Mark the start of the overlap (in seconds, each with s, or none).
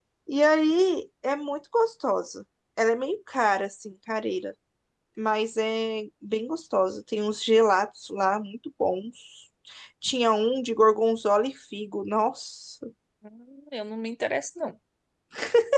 none